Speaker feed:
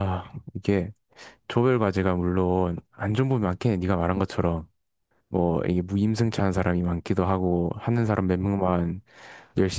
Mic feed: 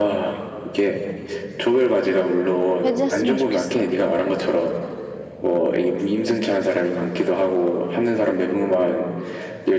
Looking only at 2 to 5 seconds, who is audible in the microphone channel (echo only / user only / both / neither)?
both